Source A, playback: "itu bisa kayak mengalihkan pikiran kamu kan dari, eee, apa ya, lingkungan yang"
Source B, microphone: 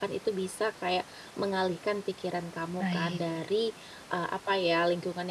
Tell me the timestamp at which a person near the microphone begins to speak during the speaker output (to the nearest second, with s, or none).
3 s